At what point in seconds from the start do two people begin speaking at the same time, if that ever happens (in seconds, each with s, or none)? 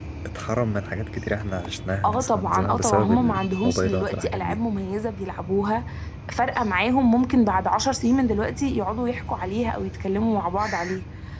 2.0 s